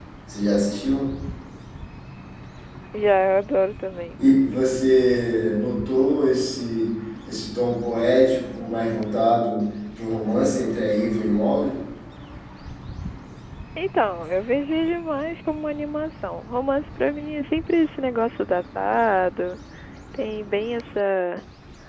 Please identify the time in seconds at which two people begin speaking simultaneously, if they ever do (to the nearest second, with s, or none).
none